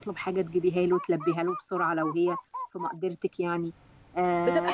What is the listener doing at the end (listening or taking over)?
taking over